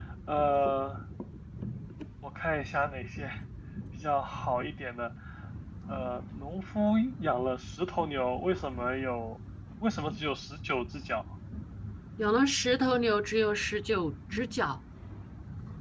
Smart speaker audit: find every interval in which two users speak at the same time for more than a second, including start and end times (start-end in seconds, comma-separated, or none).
none